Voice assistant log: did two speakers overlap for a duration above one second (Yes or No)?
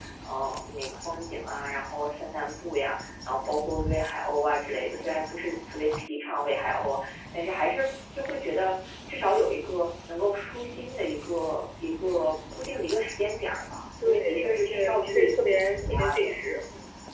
Yes